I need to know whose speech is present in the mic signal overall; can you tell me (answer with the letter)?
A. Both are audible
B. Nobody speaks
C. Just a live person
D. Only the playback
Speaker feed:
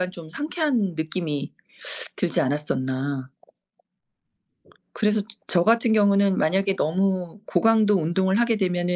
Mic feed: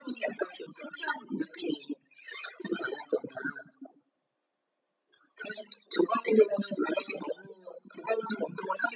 D